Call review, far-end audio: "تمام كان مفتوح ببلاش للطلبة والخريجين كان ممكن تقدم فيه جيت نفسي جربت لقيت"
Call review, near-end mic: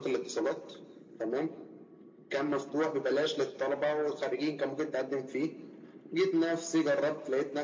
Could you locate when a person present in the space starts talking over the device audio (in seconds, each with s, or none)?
none